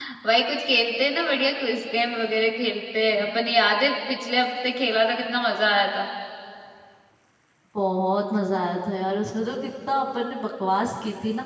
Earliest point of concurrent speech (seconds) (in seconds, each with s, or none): none